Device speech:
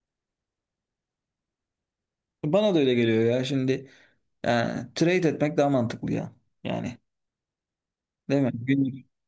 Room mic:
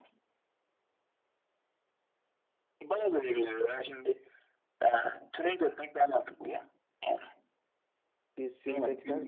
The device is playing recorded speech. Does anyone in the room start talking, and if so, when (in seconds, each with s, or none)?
8.4 s